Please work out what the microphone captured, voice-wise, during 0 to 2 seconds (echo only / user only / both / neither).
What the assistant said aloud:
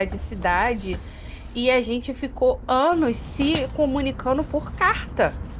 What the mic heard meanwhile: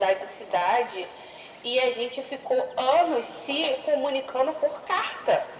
echo only